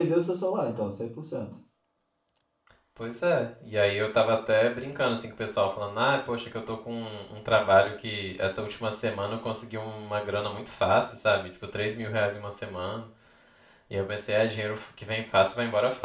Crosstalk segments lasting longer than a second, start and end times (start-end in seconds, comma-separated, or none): none